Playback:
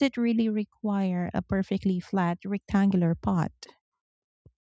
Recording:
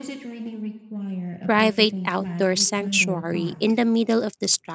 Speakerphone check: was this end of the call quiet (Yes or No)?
No